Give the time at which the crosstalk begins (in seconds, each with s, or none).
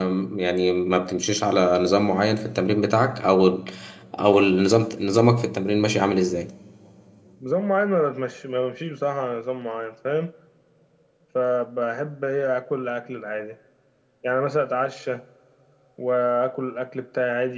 none